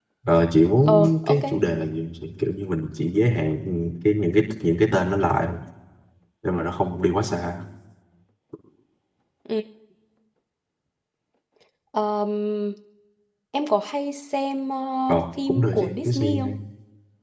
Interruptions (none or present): present